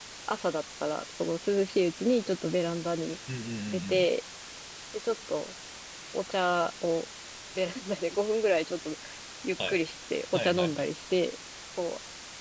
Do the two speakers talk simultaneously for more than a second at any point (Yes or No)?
No